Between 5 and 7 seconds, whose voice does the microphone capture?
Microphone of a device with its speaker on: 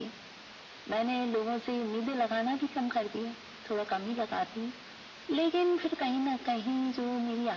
echo only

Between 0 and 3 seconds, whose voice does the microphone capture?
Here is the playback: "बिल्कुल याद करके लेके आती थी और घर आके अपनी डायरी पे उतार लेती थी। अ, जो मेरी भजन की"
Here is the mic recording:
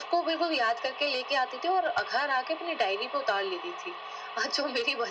echo only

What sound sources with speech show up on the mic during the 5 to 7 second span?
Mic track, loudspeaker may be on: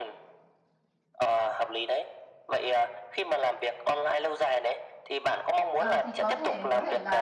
both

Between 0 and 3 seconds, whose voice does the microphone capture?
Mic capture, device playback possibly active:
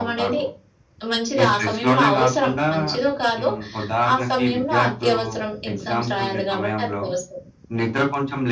echo only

